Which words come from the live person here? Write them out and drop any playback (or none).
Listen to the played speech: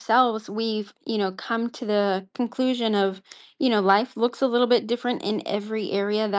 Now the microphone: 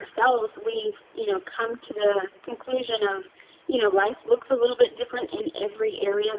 none